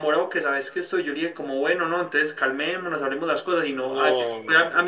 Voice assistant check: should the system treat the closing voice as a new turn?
No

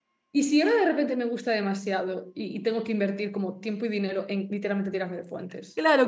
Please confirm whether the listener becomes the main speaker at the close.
Yes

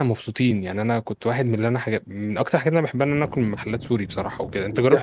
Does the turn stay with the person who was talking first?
No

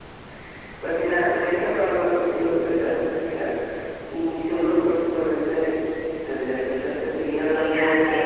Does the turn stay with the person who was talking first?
No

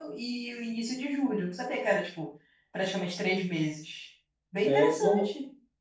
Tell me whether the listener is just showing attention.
No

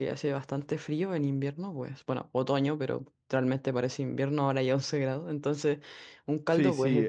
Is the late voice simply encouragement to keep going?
No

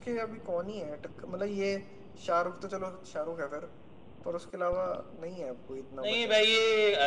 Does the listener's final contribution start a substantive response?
Yes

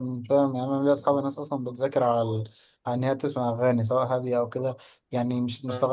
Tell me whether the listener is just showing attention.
Yes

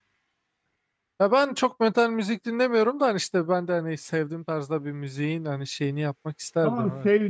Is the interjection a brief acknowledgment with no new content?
No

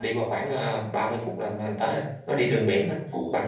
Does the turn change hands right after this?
Yes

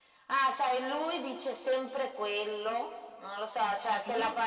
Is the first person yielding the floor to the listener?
No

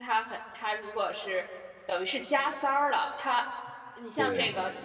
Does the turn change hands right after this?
No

